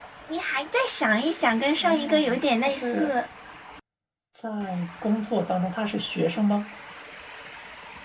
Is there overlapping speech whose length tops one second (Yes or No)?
Yes